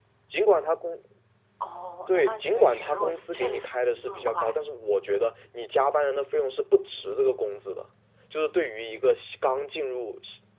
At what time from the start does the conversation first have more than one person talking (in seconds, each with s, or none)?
2.1 s